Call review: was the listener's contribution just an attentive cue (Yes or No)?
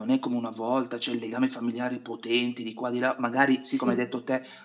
Yes